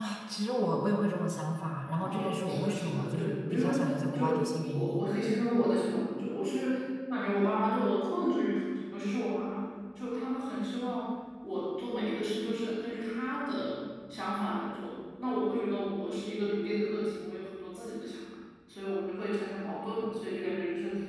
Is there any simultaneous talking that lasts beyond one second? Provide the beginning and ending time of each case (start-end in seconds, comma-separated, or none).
2.0-5.0